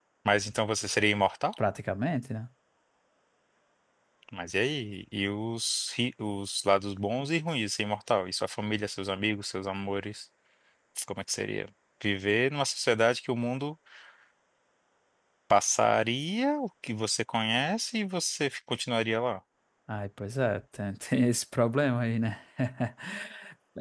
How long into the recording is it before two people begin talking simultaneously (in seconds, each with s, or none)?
none